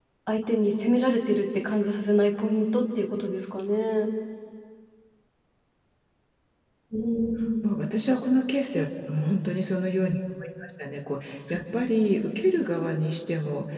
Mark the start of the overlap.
none

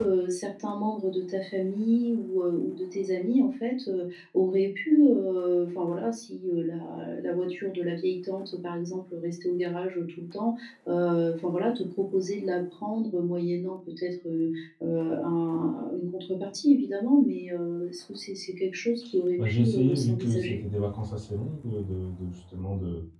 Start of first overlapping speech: 19.4 s

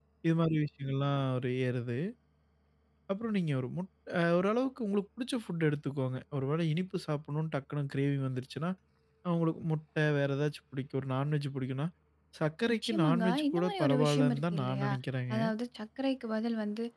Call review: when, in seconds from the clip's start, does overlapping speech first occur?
12.7 s

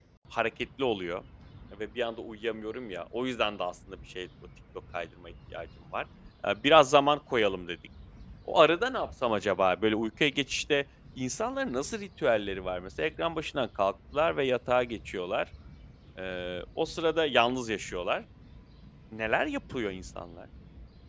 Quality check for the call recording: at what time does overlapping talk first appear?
none

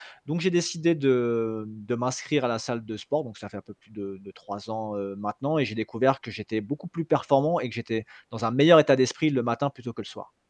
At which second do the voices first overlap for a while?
none

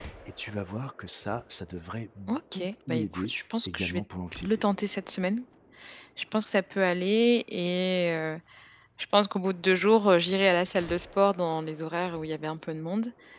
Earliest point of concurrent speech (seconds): 2.5 s

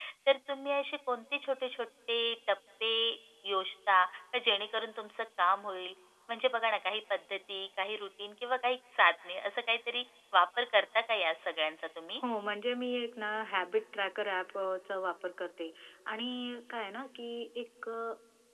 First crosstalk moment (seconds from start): none

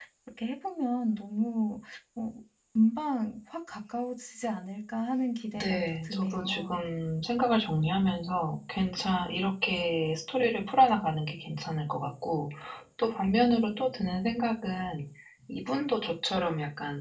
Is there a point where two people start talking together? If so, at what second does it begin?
5.5 s

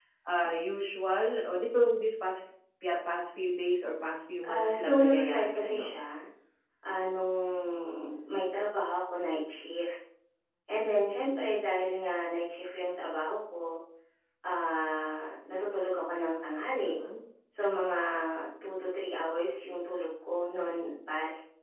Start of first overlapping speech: 4.4 s

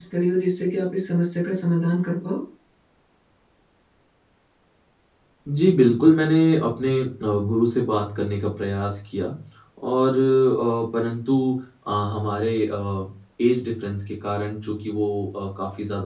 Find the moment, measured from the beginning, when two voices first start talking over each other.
none

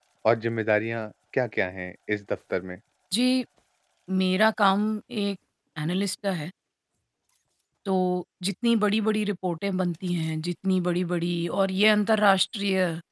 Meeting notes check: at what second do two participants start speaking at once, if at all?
none

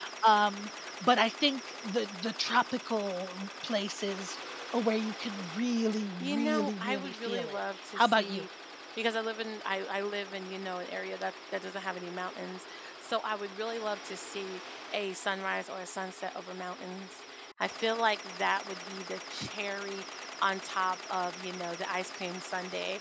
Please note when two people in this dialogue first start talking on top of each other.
6.2 s

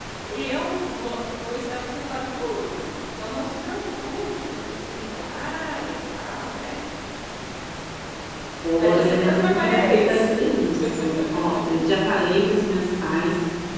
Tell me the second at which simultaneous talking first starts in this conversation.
8.8 s

